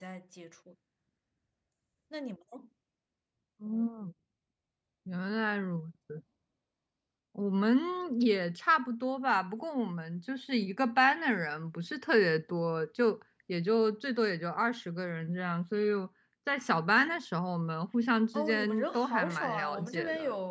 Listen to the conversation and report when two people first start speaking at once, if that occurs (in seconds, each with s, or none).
18.3 s